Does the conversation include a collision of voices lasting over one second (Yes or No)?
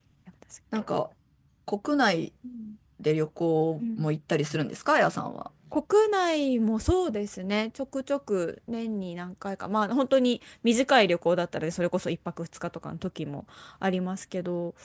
No